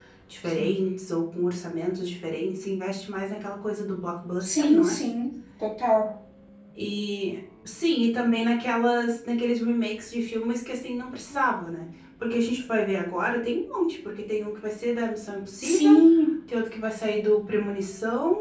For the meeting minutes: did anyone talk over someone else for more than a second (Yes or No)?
No